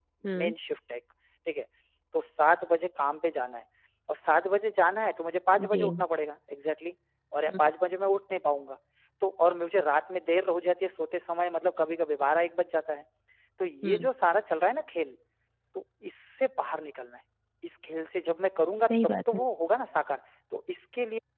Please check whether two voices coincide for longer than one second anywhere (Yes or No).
No